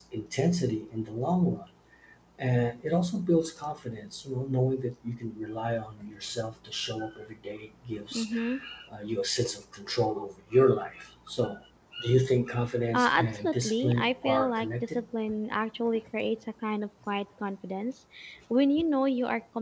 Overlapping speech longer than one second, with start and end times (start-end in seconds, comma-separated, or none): 12.9-15.0